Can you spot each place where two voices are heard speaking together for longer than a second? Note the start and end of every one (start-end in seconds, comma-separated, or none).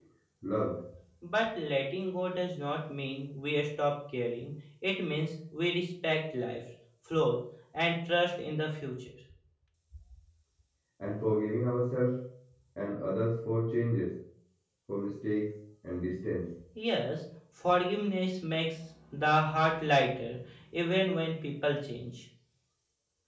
none